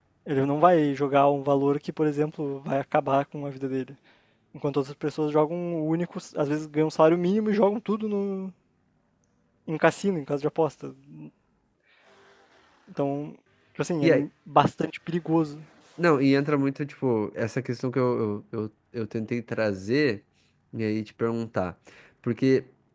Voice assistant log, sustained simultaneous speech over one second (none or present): none